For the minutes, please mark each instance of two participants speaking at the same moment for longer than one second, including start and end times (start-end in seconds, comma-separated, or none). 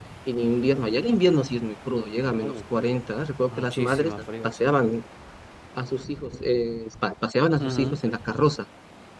3.5-4.7